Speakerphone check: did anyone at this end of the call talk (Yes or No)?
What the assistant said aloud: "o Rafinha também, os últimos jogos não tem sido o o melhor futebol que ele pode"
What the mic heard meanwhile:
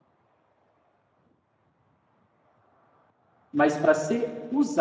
Yes